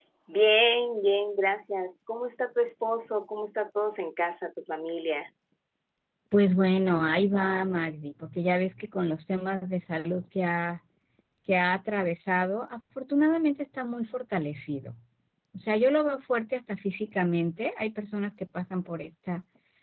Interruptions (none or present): none